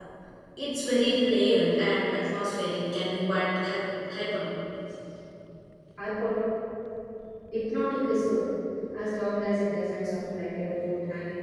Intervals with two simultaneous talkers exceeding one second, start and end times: none

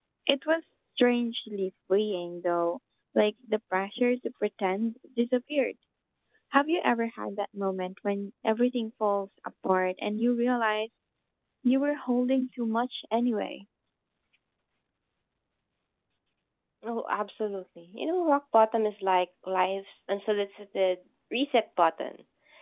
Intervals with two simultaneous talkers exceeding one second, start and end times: none

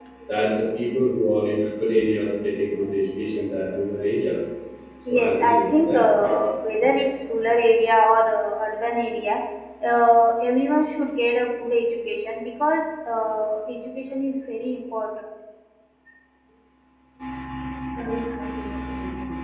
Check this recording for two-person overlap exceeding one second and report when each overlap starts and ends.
5.2-6.4

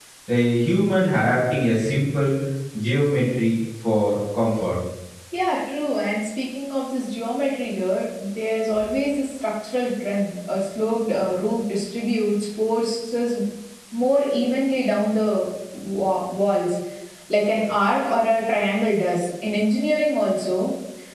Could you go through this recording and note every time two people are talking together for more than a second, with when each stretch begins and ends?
none

